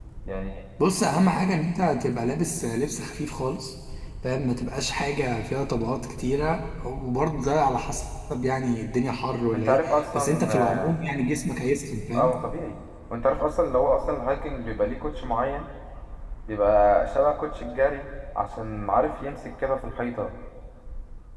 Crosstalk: present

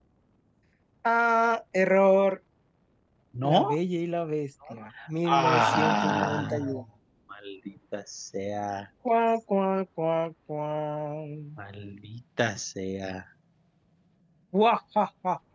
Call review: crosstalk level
present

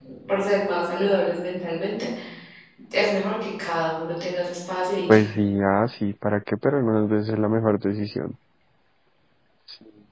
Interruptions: none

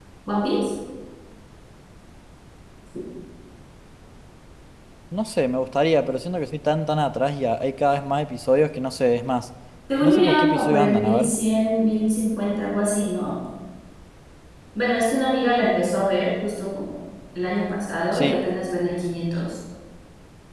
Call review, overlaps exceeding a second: present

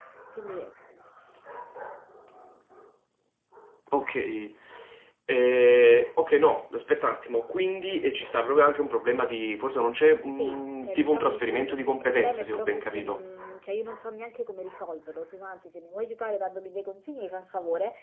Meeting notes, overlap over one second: present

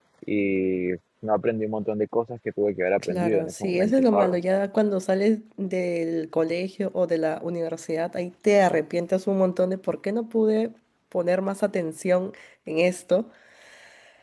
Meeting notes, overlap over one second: present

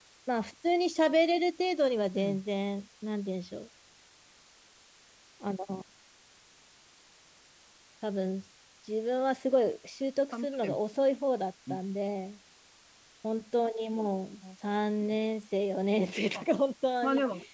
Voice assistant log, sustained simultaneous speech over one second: none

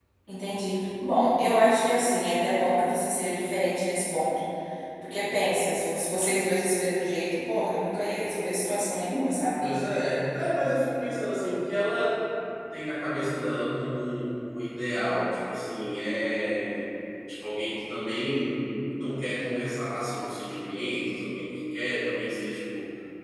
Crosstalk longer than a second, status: none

